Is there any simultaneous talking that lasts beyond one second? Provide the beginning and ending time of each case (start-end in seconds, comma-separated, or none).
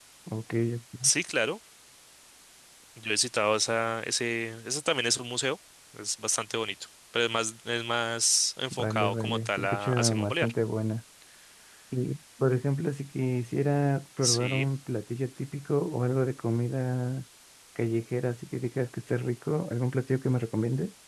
8.7-10.5